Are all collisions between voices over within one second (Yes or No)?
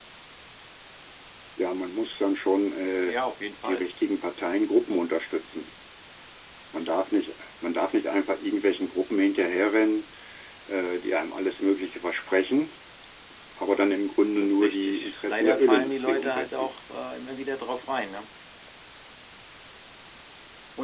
No